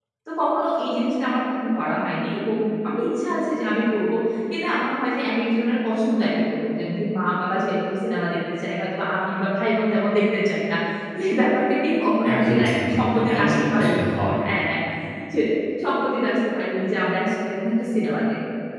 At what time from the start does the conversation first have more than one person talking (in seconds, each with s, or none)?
12.2 s